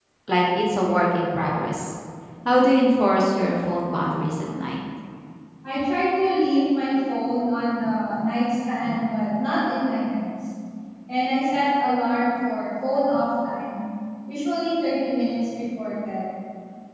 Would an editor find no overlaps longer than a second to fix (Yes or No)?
Yes